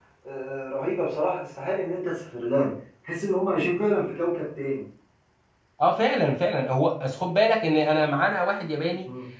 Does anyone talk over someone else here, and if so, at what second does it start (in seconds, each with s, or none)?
none